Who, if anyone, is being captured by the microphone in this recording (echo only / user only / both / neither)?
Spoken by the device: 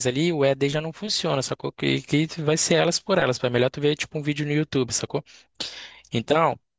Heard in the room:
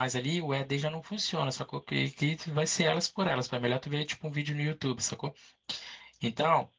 echo only